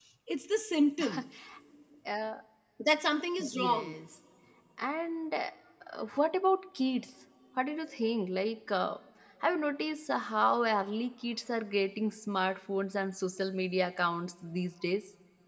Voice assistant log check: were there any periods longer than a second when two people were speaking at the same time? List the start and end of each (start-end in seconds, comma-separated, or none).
none